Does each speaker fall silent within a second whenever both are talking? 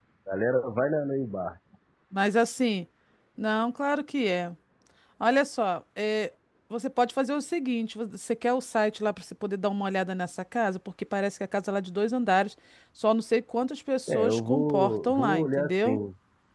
No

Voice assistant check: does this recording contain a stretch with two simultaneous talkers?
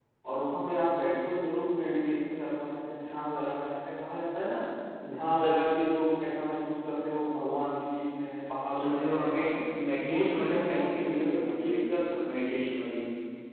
Yes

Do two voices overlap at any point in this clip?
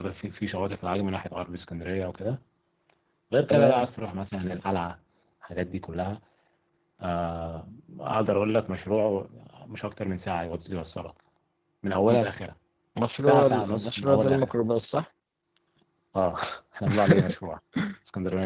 Yes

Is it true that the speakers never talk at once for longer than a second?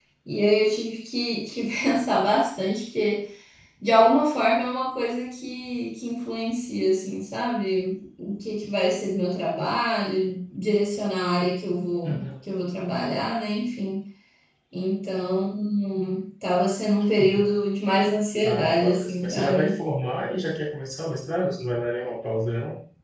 No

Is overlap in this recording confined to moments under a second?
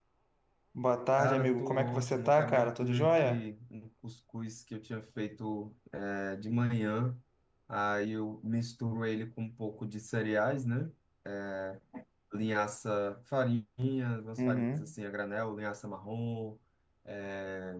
No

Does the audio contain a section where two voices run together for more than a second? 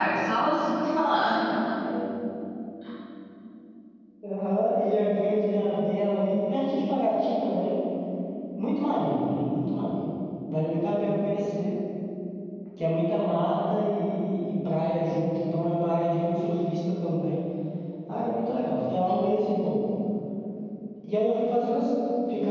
No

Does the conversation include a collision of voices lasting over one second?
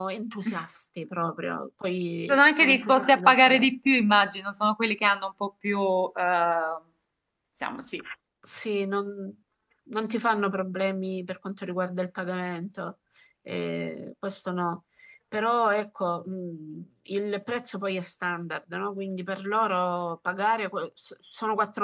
Yes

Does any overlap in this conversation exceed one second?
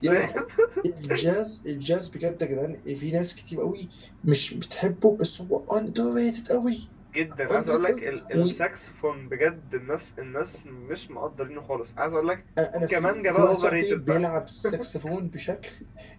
Yes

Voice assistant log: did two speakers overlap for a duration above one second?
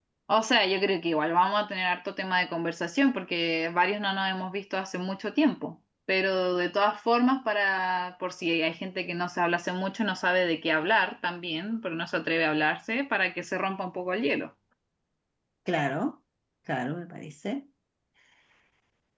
No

